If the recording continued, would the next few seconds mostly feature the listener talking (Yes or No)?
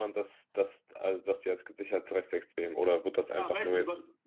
Yes